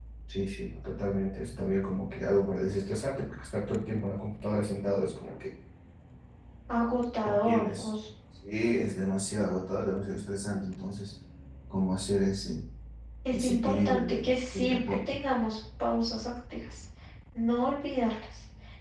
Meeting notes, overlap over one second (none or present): present